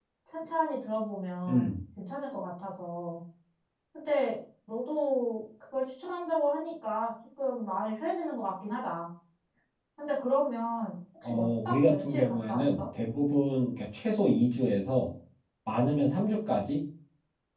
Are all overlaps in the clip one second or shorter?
No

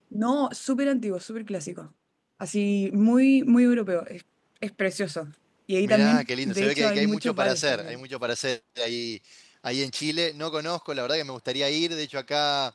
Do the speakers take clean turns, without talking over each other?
No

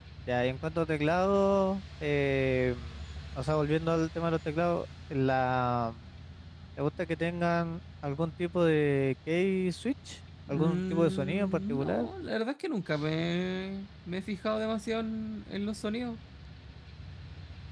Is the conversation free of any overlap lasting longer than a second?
No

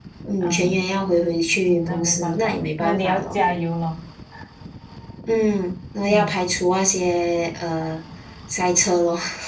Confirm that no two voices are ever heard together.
No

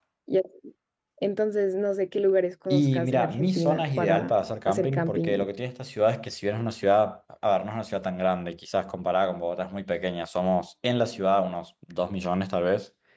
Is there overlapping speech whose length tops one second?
Yes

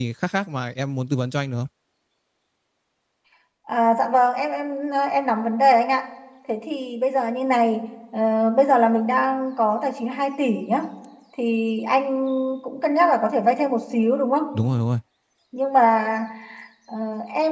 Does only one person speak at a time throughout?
Yes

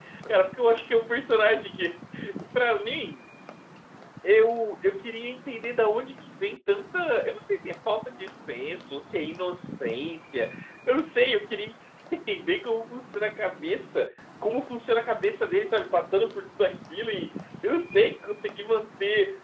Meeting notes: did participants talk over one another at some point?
No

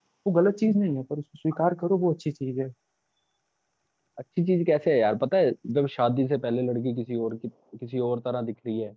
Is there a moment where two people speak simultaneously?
No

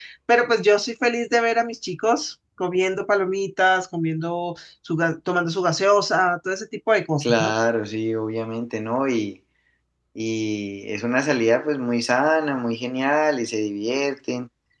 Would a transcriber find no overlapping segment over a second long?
Yes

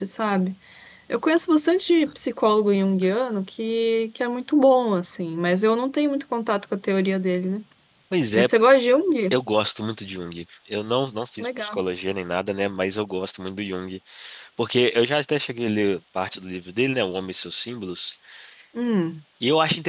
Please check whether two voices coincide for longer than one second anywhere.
No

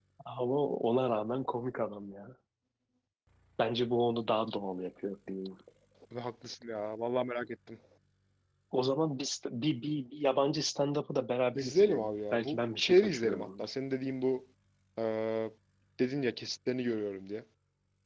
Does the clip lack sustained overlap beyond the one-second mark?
No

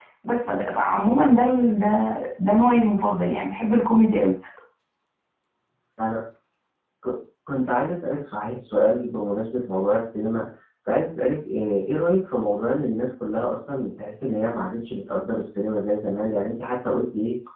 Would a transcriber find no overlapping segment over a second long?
Yes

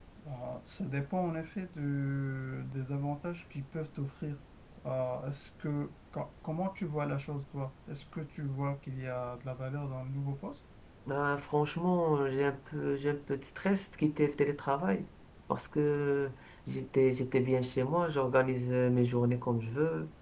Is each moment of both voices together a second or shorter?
Yes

